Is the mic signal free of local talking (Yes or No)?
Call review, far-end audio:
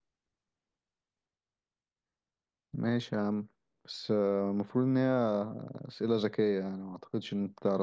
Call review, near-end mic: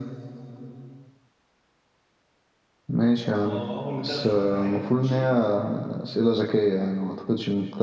No